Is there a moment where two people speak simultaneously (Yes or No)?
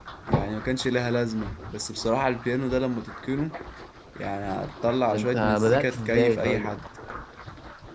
Yes